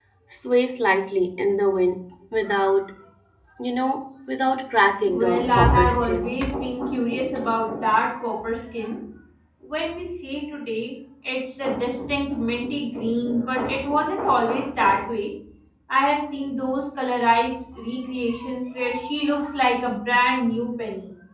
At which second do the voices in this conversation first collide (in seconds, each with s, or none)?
5.0 s